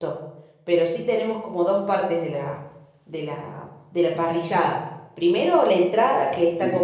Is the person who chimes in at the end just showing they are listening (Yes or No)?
Yes